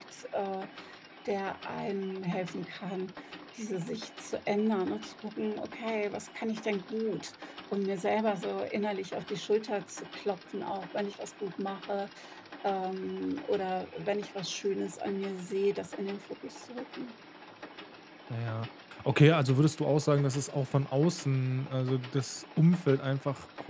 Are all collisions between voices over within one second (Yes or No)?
Yes